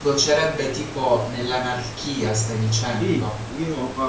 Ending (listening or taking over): taking over